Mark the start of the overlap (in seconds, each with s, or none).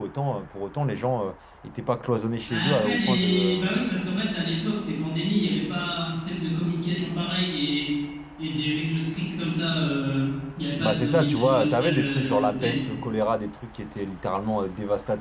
2.5 s